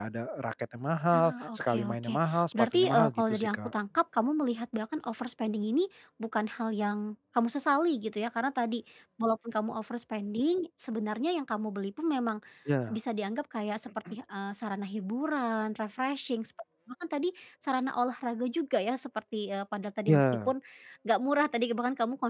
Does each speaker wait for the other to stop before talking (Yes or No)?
No